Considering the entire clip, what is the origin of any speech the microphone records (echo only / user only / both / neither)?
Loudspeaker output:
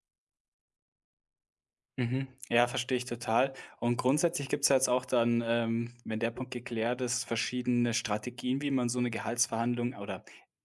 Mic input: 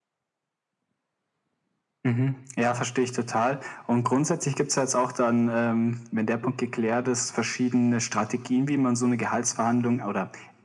echo only